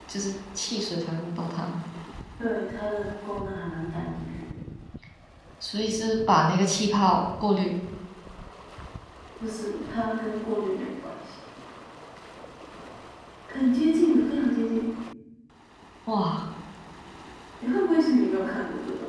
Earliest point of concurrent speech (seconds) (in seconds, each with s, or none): none